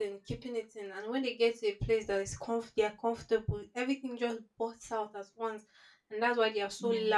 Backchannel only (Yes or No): Yes